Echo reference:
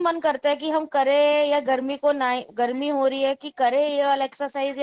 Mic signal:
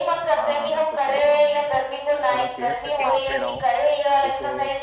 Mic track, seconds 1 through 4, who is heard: both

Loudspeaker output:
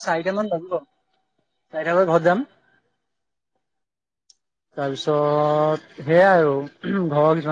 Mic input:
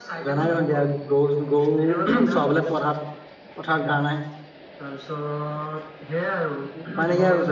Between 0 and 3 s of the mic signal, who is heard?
both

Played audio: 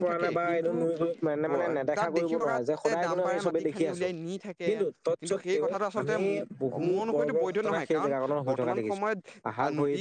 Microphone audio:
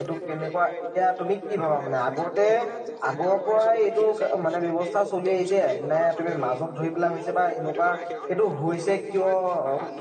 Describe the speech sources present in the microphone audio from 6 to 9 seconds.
both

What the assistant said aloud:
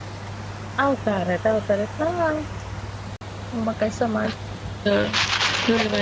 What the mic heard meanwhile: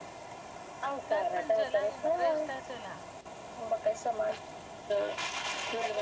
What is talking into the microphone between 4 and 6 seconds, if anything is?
echo only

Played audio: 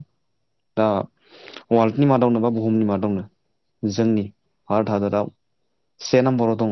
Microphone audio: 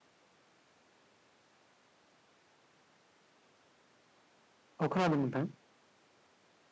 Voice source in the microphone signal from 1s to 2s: neither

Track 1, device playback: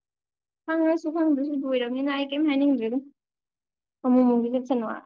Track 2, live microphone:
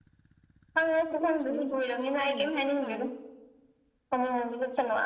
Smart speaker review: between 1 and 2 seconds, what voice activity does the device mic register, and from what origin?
both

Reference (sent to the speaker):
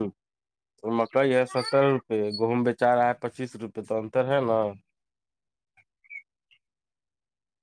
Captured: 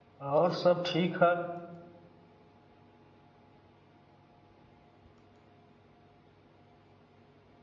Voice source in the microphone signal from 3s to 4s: neither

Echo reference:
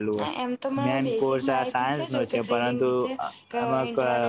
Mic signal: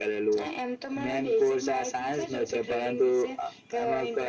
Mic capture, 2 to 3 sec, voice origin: echo only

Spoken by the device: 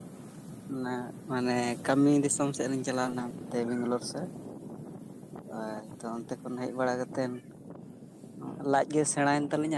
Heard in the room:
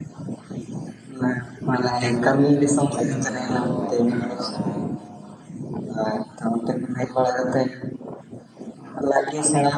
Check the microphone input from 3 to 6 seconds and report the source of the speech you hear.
both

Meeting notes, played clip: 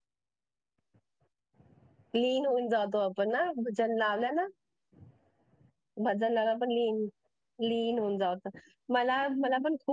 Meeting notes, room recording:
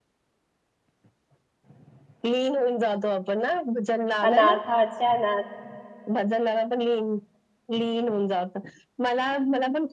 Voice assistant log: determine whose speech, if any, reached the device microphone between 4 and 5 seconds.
both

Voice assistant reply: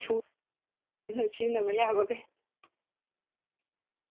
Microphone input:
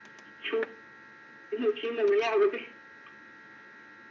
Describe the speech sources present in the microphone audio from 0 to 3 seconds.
echo only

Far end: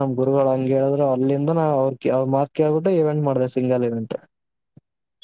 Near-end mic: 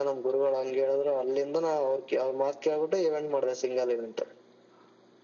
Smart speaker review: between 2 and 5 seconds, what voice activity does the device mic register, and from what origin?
echo only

